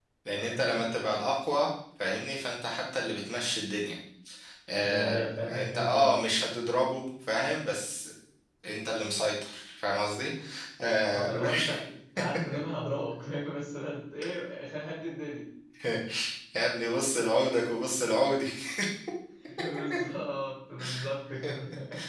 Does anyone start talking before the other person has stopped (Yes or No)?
Yes